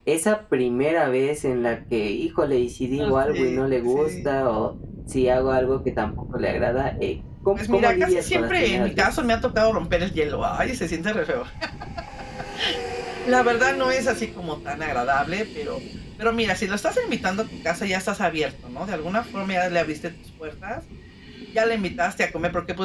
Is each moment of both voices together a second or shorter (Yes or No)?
No